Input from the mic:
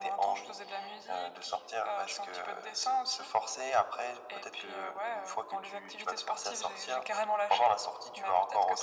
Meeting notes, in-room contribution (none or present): none